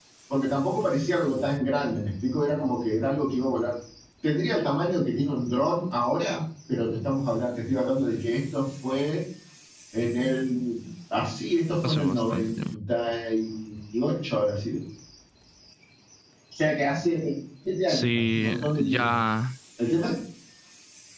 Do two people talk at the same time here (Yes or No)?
Yes